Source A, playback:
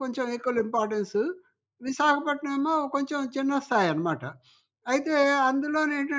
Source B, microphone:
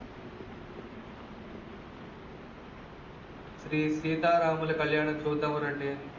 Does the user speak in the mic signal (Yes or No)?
Yes